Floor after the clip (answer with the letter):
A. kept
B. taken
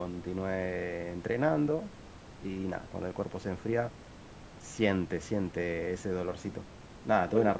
A